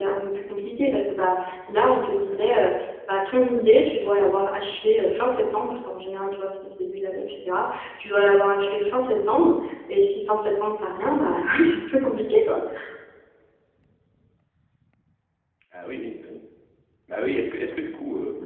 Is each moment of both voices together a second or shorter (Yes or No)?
Yes